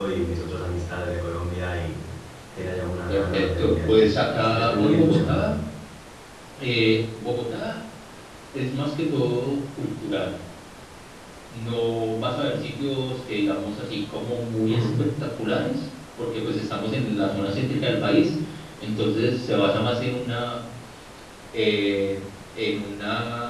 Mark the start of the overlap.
3.1 s

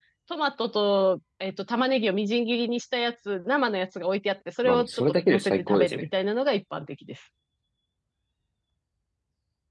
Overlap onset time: 4.6 s

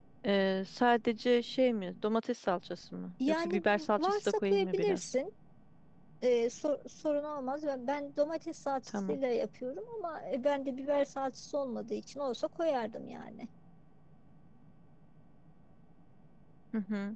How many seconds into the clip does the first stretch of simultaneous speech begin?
3.3 s

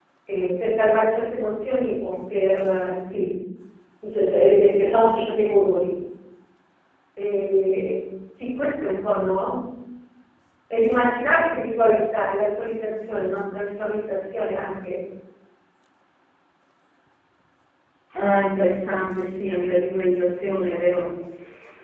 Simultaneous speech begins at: none

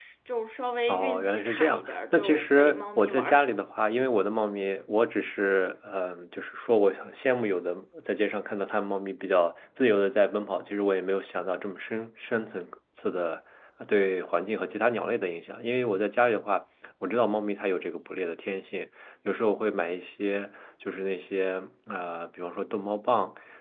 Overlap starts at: 0.9 s

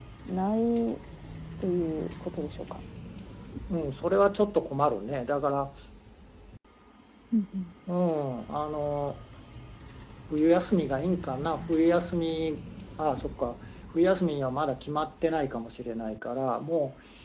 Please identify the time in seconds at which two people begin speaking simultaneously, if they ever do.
none

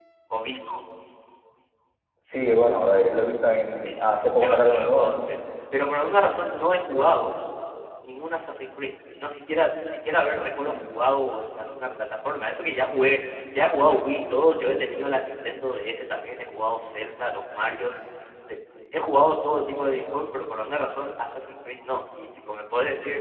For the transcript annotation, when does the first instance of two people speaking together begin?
3.8 s

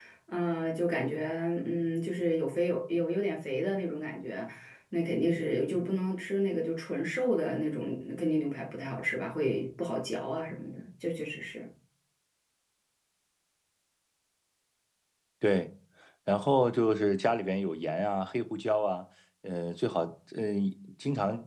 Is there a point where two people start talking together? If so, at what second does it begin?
none

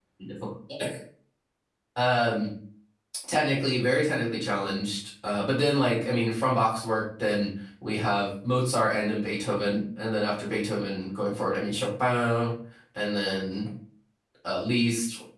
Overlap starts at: none

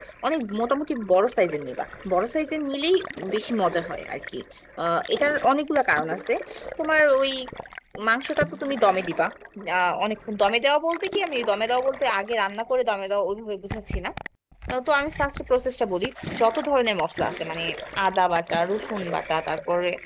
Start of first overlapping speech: none

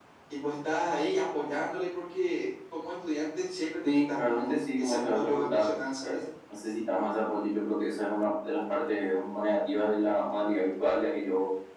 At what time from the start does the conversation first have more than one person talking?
3.8 s

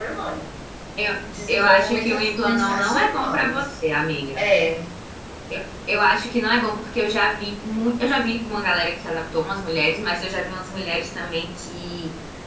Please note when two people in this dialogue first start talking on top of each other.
1.5 s

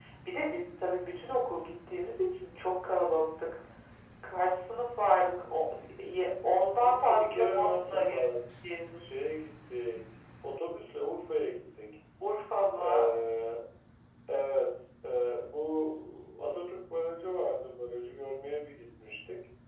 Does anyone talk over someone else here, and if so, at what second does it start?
6.8 s

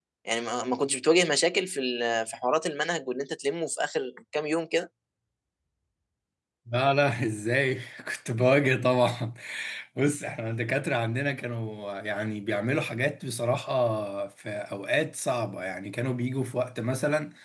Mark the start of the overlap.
none

